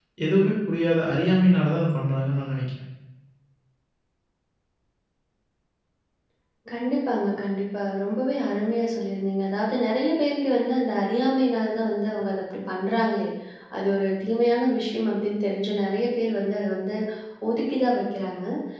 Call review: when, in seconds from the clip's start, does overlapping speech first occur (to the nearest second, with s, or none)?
none